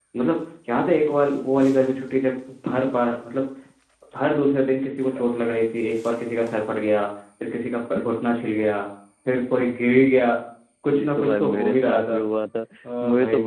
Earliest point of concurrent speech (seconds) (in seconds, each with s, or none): 10.9 s